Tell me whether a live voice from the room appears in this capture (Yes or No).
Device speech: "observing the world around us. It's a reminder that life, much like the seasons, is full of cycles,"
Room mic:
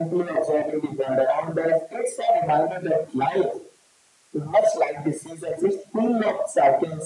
No